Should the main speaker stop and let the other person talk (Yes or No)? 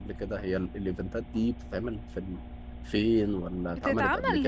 Yes